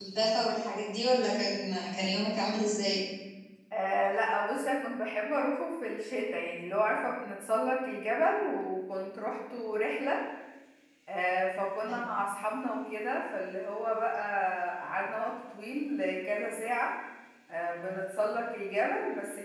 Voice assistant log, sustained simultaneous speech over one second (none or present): none